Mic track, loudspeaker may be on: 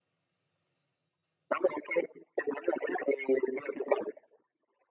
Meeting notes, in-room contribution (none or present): none